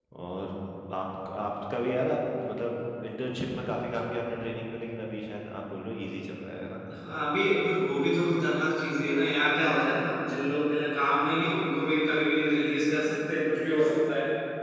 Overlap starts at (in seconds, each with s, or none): none